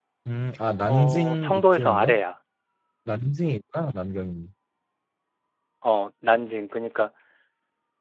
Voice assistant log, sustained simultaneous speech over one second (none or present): present